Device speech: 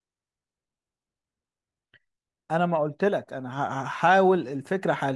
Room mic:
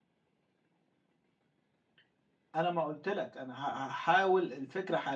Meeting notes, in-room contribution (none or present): none